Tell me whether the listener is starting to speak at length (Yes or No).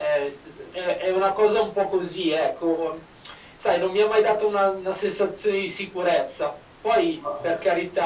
No